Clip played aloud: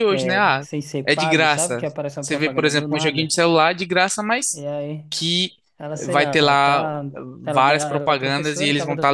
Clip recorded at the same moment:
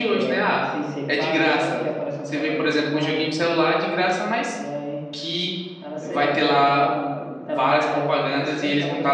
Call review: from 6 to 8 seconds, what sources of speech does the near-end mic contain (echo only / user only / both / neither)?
echo only